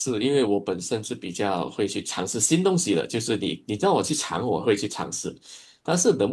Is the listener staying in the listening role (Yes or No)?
Yes